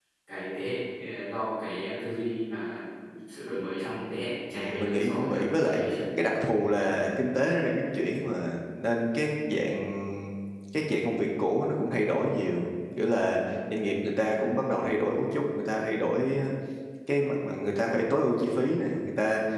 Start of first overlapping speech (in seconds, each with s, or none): 4.5 s